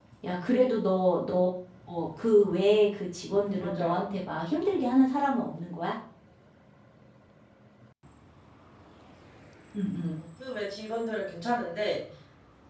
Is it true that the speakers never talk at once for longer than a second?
Yes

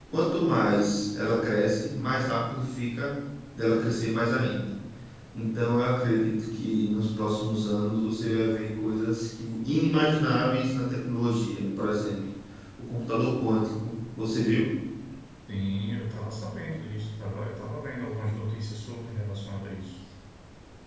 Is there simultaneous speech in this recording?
No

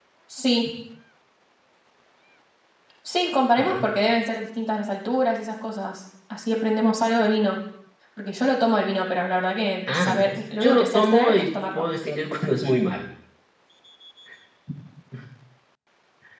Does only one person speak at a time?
No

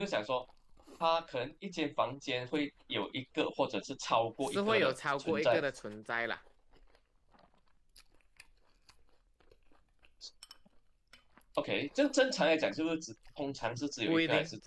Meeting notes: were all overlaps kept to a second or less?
No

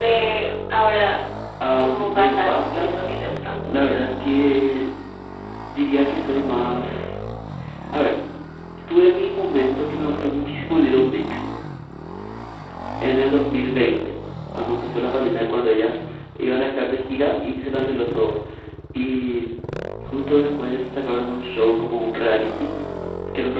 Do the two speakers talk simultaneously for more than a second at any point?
Yes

